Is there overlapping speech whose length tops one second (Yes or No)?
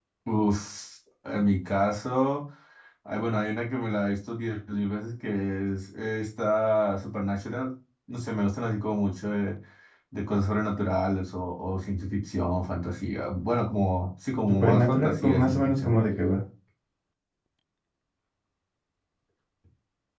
Yes